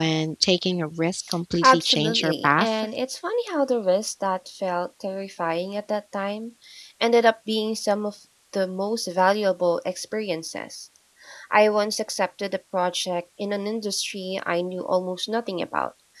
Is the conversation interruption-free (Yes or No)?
No